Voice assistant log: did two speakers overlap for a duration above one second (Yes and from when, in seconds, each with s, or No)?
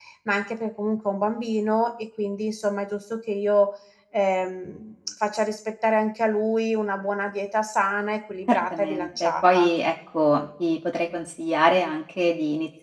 Yes, from 8.5 s